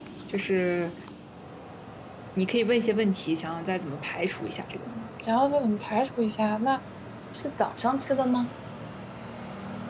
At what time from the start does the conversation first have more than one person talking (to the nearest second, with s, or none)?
none